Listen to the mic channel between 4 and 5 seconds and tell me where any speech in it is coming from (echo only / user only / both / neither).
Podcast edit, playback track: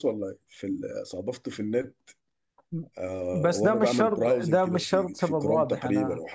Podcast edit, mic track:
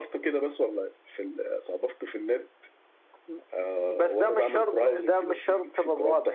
echo only